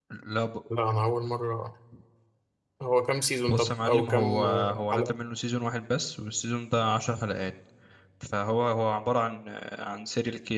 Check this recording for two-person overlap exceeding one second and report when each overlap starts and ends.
3.5-5.2

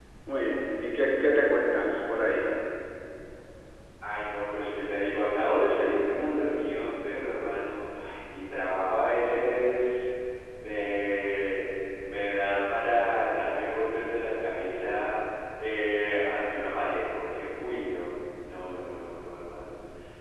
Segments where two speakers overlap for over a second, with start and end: none

